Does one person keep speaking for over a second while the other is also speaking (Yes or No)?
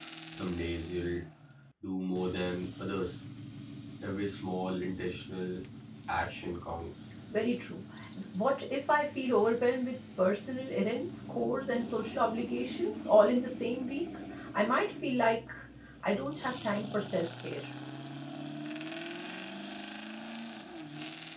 No